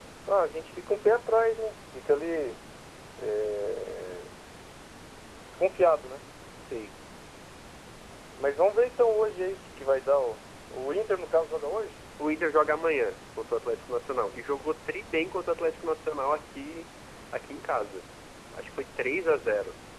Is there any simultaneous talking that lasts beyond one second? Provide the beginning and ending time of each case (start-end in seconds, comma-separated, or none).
none